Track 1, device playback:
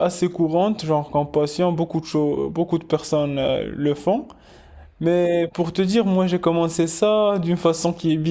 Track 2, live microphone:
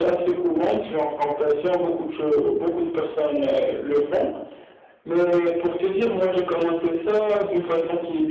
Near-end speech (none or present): none